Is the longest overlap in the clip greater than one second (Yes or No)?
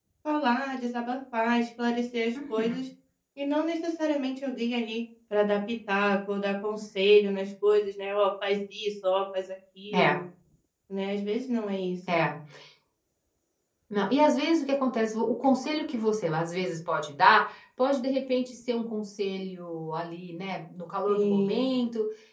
No